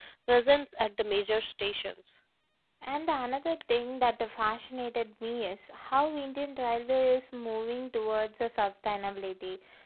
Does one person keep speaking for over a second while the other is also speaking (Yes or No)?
No